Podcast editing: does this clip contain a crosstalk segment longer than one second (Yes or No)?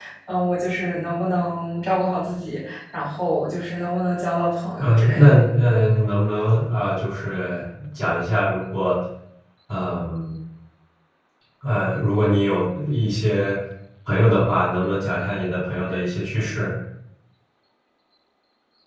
No